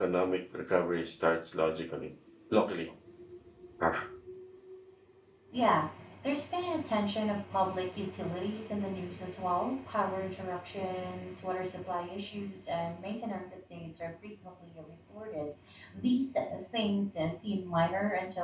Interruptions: none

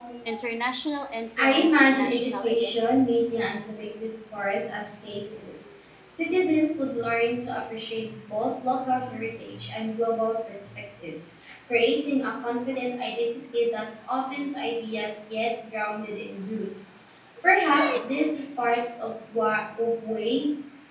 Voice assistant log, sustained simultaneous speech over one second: present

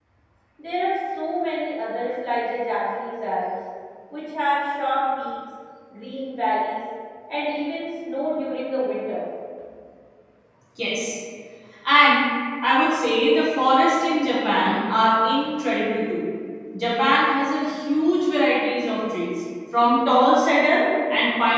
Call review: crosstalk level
none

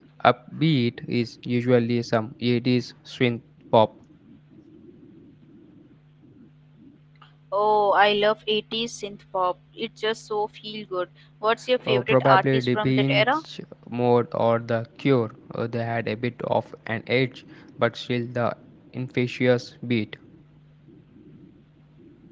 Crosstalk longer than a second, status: present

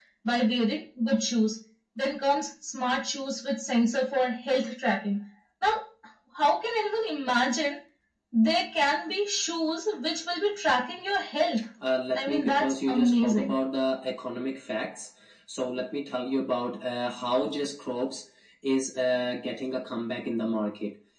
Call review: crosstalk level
present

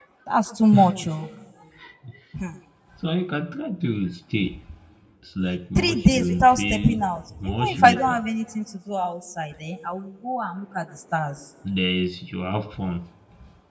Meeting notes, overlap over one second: present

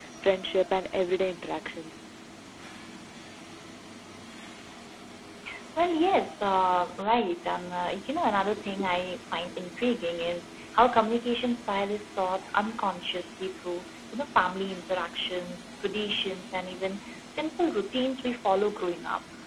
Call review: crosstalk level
none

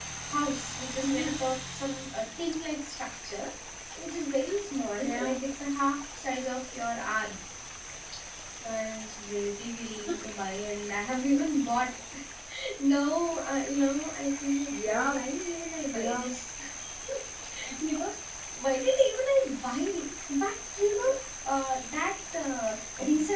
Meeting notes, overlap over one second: none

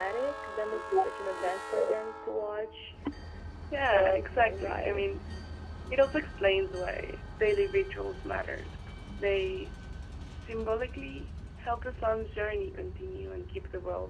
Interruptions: present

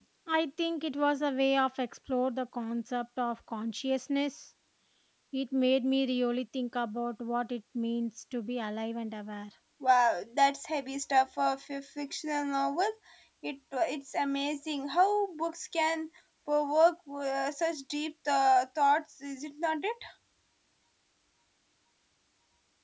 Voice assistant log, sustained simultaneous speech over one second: none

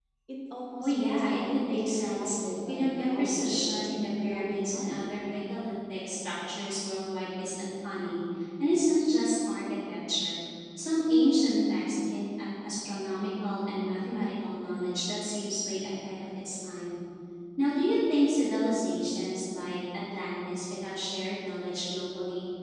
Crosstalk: present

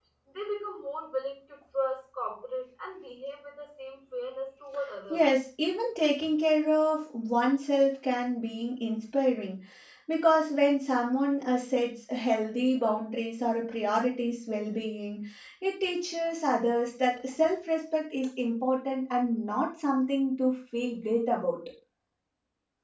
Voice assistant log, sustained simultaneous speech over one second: none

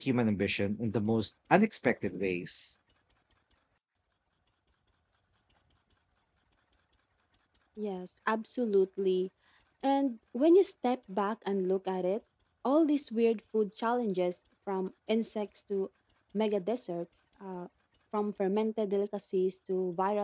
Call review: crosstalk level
none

